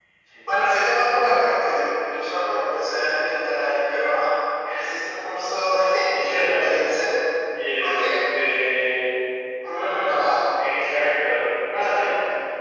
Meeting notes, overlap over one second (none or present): none